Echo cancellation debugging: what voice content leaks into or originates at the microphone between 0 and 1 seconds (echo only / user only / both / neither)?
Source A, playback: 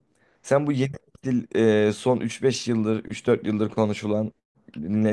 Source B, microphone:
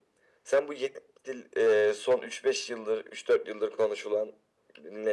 echo only